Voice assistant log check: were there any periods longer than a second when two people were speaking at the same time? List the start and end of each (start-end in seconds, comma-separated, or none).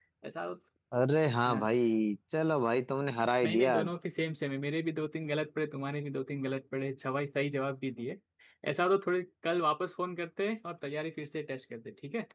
none